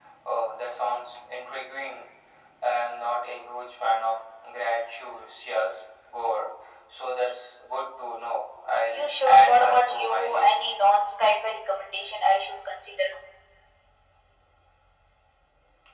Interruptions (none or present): present